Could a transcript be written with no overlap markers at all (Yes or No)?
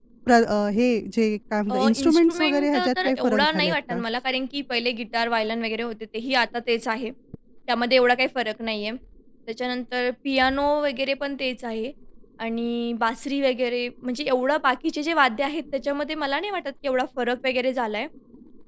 No